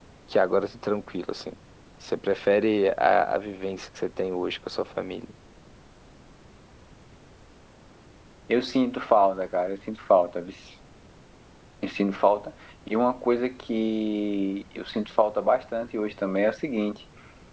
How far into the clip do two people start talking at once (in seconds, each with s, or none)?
none